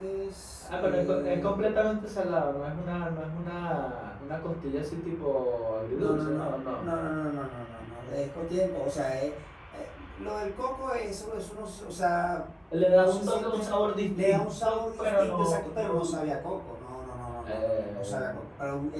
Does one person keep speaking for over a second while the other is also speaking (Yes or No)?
Yes